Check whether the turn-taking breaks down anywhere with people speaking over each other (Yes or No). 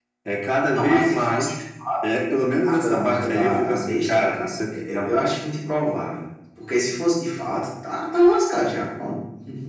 Yes